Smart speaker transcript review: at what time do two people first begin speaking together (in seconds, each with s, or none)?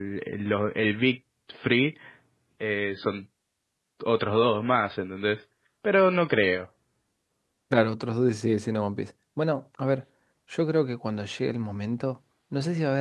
none